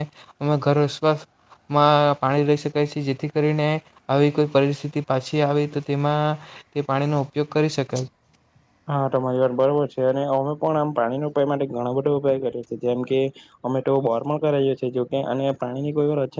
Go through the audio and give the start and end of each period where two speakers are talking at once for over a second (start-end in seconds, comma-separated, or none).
none